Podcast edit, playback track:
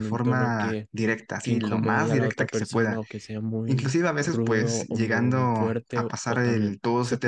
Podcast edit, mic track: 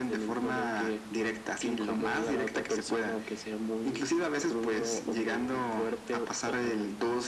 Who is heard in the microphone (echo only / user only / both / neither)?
echo only